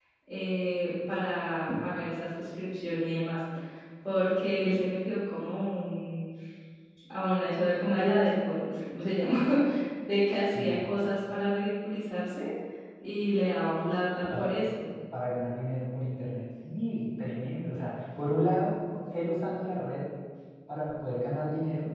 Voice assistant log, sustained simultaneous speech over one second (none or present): none